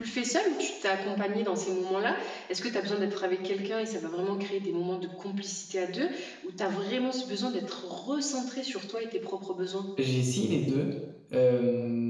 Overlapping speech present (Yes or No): No